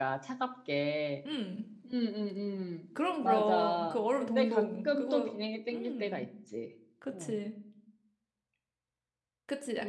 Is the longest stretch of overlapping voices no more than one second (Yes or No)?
No